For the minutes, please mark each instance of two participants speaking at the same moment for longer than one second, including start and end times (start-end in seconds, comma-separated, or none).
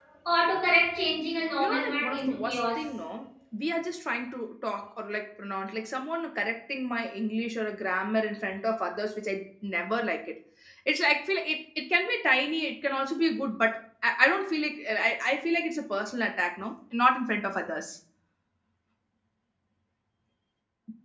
1.6-2.9